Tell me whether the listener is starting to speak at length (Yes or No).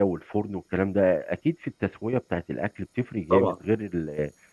No